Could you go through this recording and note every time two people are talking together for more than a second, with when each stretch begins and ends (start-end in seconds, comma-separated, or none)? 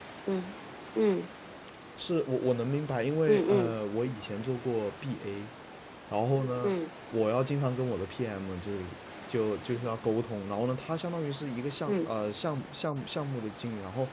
none